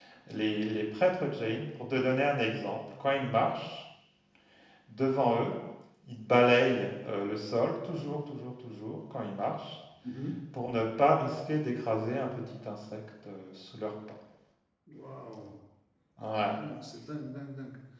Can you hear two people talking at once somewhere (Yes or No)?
No